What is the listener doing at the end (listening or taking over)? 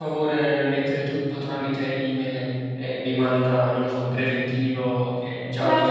taking over